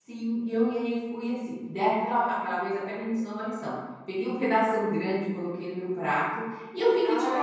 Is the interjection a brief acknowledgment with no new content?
Yes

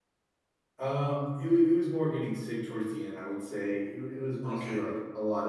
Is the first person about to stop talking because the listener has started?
No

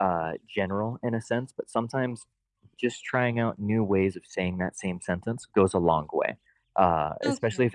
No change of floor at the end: No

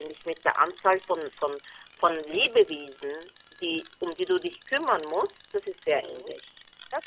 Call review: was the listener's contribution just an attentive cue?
No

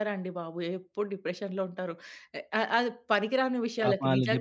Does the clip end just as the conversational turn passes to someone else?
Yes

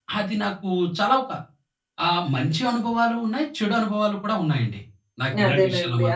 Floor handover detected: Yes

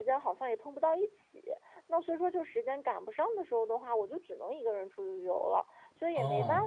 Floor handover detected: No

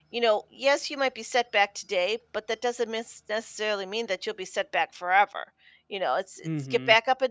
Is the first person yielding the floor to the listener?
No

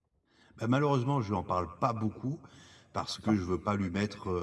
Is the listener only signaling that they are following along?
Yes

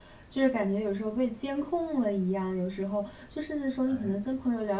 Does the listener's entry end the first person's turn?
No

